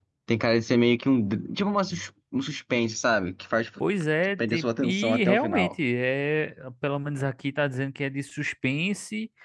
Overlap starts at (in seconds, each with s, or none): 4.4 s